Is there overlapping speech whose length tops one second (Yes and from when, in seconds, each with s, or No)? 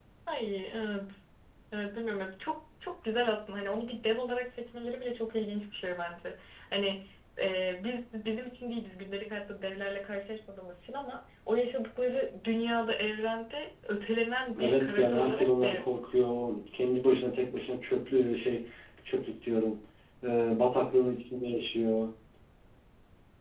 Yes, from 14.6 s